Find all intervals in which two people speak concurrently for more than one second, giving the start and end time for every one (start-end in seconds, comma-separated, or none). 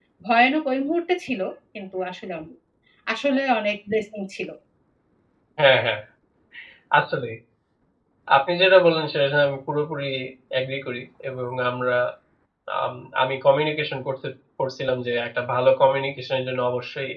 none